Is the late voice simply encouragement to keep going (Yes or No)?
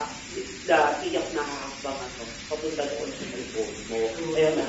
Yes